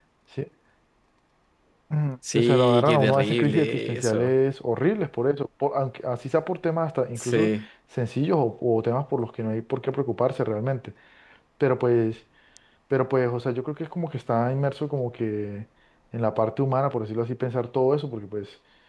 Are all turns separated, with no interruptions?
No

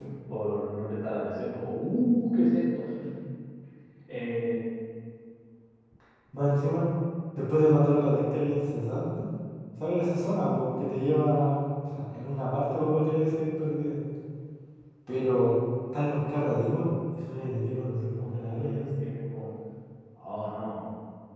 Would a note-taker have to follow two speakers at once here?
Yes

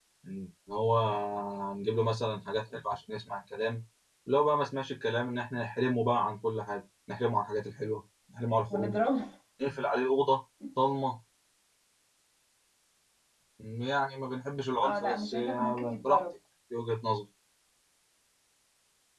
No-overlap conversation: No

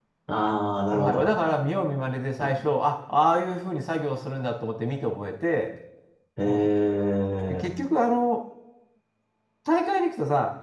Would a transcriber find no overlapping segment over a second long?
Yes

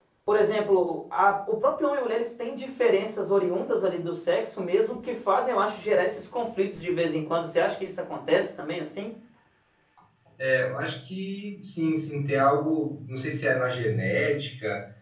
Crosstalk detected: No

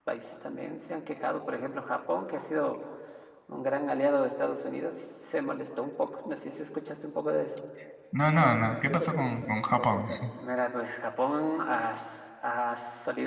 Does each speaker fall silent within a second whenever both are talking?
Yes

